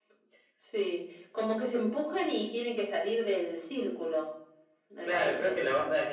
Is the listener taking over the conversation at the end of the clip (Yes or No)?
Yes